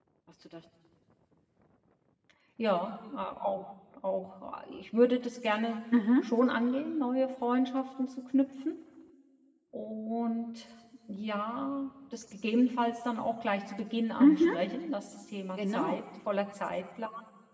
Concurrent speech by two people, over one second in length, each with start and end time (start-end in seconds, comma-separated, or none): none